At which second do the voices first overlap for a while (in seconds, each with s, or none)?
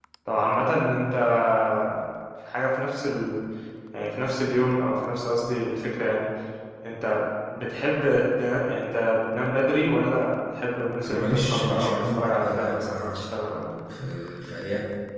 11.0 s